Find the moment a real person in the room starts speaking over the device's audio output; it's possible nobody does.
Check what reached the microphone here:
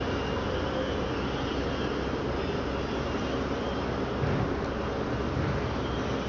none

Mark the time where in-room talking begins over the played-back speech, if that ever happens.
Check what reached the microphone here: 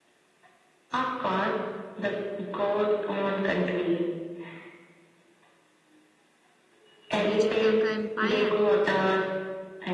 7.2 s

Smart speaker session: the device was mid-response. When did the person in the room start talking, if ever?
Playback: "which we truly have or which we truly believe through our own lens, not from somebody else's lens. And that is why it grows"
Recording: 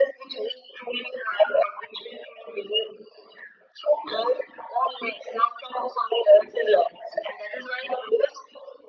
none

